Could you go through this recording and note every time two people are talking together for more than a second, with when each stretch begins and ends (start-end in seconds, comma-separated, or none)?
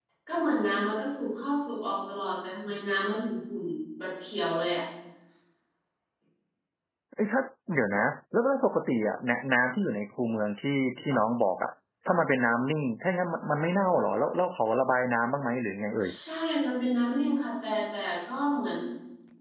none